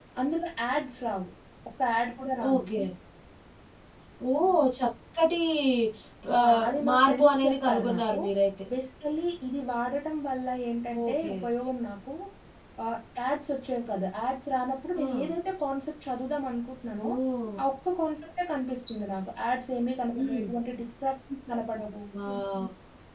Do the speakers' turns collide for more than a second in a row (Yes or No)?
Yes